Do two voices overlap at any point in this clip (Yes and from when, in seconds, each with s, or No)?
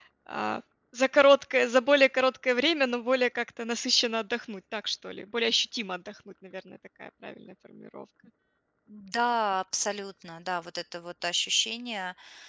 No